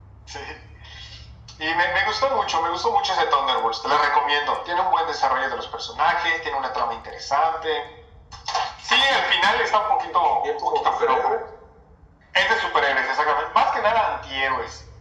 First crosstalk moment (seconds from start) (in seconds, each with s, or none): 9.8 s